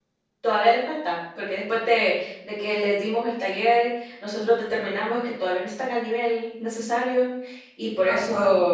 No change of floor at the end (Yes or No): Yes